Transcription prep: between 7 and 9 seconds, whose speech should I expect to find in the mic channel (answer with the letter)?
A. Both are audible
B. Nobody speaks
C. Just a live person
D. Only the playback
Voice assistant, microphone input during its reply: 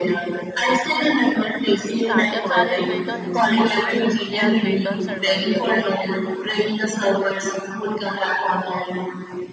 D